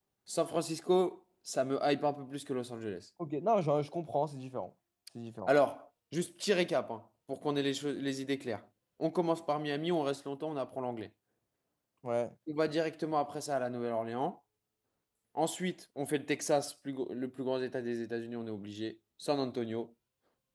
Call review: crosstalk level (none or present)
none